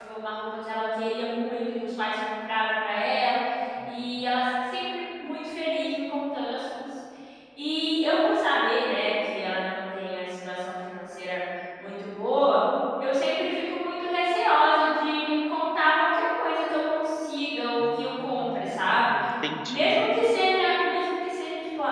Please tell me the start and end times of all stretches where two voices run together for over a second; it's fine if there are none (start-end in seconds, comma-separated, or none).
17.8-19.1